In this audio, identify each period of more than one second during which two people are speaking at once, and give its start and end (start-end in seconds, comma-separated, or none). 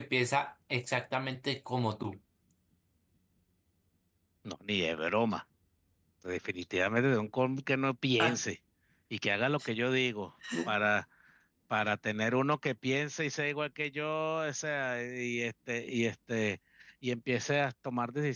none